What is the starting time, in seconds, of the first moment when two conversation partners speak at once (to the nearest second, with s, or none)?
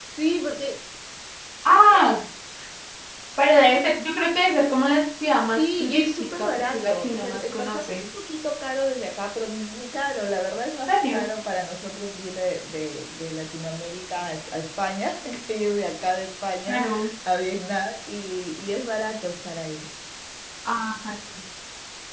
5 s